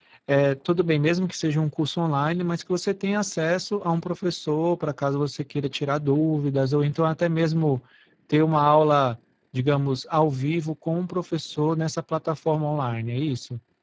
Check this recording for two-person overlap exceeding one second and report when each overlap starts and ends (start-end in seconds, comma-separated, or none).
none